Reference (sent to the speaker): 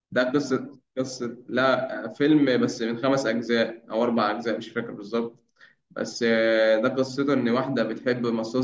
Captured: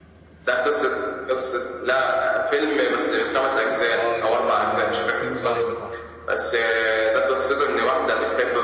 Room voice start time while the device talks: 4 s

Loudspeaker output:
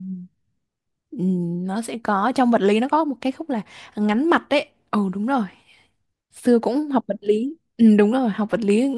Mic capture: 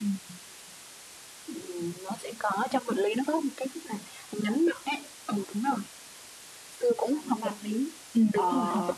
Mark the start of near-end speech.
7 s

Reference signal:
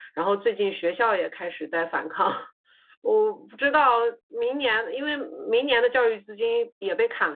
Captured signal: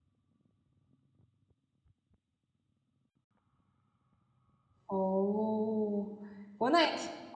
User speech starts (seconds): 5 s

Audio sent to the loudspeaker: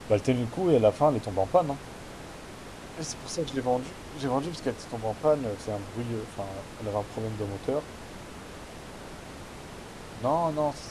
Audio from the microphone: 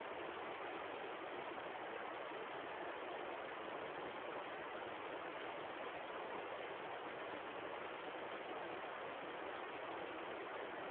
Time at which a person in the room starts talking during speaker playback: none

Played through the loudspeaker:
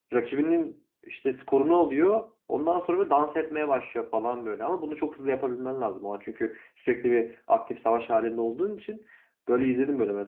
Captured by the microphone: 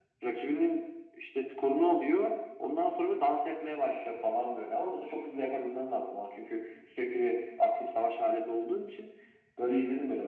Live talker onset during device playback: none

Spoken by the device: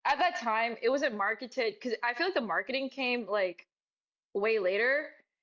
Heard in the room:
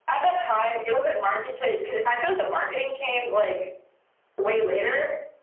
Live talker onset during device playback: none

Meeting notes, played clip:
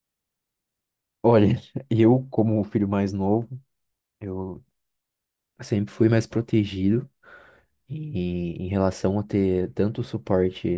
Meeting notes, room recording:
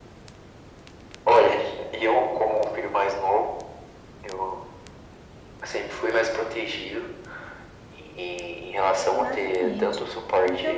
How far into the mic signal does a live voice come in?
9 s

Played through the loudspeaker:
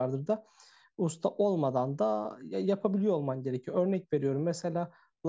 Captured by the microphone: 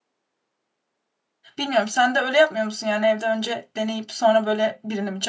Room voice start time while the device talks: 2 s

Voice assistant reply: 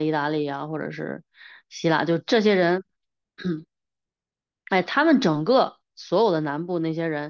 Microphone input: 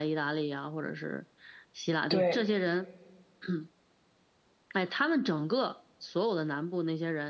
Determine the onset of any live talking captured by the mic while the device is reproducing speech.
2 s

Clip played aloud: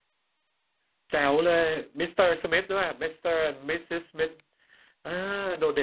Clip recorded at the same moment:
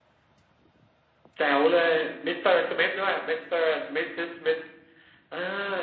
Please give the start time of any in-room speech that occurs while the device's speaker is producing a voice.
none

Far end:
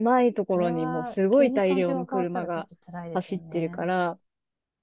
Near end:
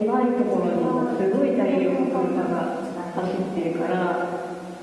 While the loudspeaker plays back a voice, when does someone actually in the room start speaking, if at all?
none

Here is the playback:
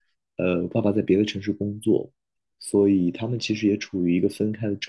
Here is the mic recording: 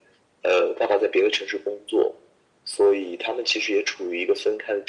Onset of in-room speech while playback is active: none

